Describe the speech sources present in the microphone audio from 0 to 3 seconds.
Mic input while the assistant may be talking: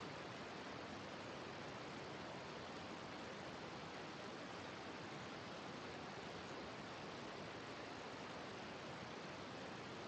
neither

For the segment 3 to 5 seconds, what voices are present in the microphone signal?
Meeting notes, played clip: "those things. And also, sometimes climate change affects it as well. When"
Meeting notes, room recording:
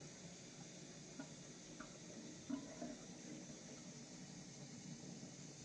neither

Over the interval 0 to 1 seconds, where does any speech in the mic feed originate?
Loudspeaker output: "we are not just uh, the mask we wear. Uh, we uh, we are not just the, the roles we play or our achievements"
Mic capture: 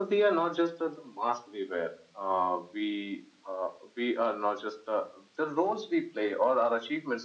echo only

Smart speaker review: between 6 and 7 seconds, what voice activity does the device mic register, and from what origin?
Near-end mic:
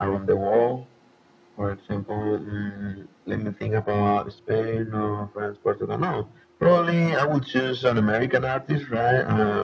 echo only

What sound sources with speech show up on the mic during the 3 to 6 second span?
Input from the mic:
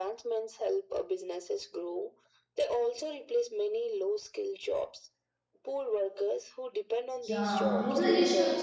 echo only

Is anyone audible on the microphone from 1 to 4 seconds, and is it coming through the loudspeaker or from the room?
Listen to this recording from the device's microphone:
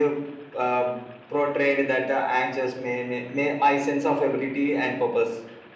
echo only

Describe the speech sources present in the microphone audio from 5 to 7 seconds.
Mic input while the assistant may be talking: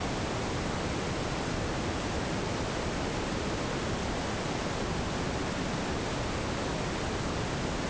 neither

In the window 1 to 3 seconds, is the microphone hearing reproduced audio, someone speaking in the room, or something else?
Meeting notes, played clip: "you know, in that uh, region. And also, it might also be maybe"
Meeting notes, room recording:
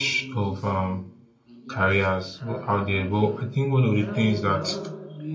both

